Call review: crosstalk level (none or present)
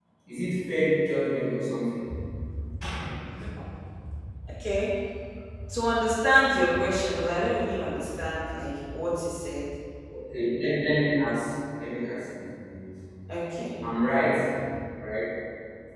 none